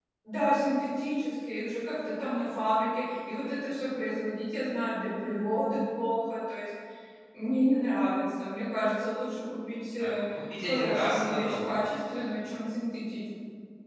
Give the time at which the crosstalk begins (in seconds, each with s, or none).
10.0 s